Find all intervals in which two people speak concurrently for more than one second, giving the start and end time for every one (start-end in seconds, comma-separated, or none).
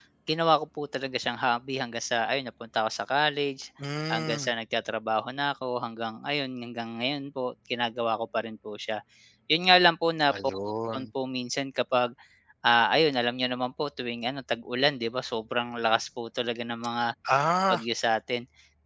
none